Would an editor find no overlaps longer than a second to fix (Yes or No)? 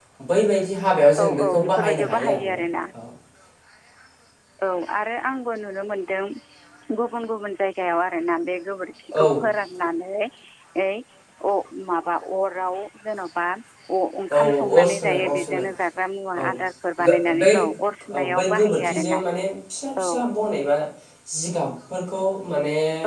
No